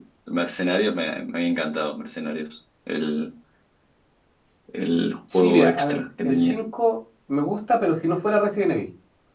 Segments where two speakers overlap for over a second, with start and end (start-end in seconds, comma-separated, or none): 5.3-6.6